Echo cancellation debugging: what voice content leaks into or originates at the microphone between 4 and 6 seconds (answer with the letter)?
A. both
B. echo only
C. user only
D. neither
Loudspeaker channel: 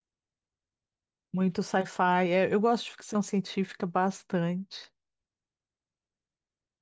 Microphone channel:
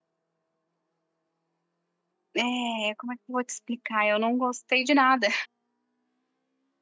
C